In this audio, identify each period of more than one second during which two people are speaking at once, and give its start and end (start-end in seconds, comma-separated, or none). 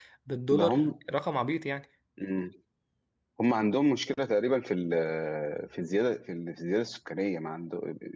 none